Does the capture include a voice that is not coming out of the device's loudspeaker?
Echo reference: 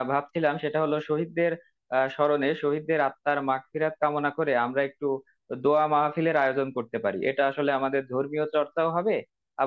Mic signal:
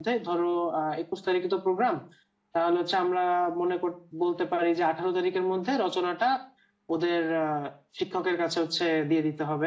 Yes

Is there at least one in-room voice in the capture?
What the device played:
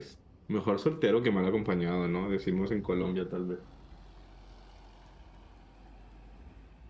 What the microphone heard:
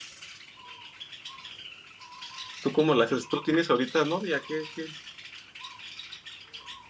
Yes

